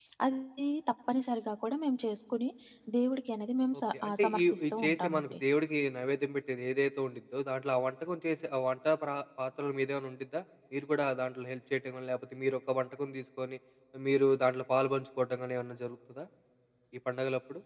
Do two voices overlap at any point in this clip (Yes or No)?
Yes